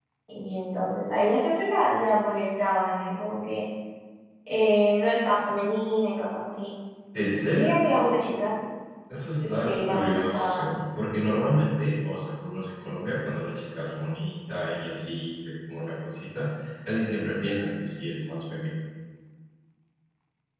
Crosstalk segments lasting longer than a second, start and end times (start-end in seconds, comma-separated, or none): 9.5-10.7